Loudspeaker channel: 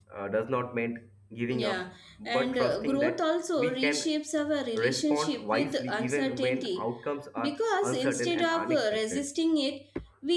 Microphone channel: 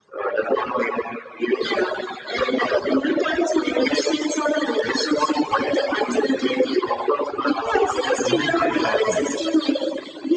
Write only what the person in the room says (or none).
lose their sharpness,